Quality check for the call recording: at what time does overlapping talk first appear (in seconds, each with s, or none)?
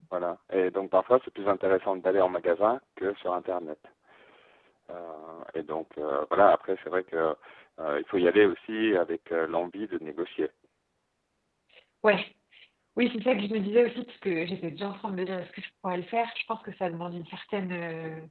none